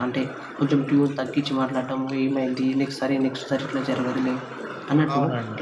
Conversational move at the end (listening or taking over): listening